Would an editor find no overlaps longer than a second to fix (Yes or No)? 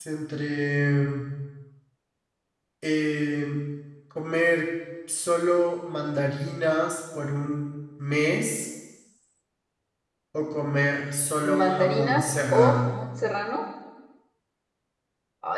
No